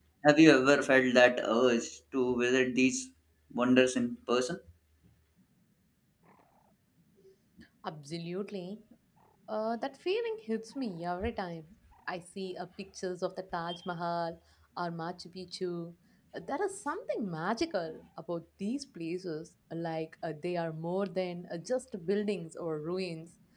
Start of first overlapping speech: none

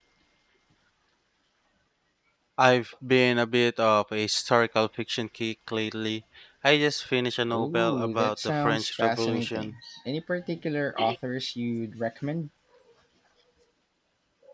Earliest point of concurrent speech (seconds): 7.5 s

